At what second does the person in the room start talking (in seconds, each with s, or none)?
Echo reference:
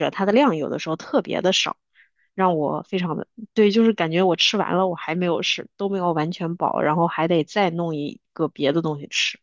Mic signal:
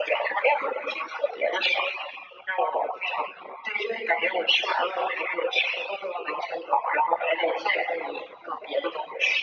none